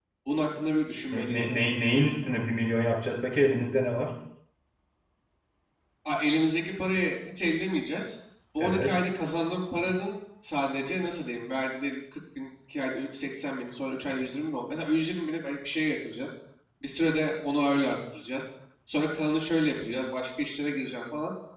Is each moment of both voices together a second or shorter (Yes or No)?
Yes